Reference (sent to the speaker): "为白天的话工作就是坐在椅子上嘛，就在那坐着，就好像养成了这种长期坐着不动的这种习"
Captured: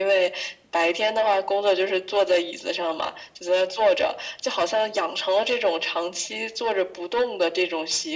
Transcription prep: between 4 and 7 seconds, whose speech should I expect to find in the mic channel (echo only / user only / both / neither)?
echo only